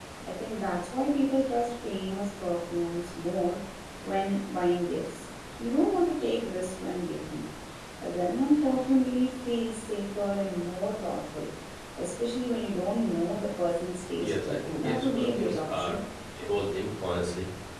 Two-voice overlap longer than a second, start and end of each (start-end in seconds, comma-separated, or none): 14.2-16.0